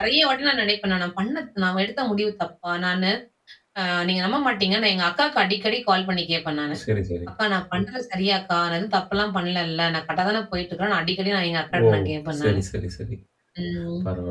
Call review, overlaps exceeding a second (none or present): none